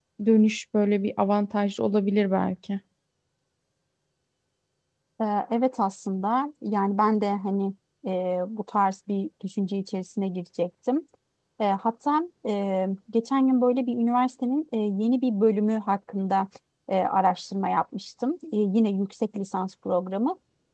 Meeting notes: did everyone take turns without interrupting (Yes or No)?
Yes